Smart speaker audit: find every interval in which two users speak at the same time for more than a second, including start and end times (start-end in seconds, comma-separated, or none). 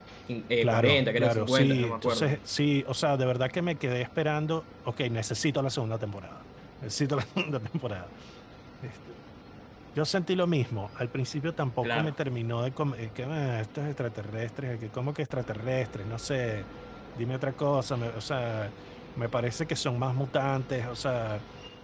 0.6-2.4